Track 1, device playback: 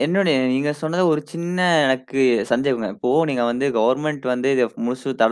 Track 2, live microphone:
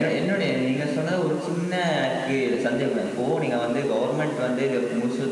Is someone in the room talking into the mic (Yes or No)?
No